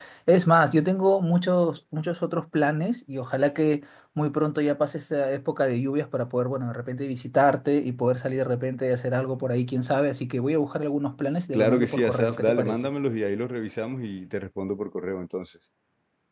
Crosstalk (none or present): present